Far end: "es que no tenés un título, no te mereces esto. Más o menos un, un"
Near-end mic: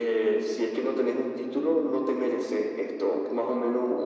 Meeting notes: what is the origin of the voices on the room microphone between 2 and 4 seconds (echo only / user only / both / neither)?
echo only